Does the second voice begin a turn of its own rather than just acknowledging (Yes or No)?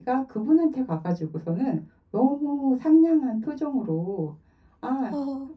No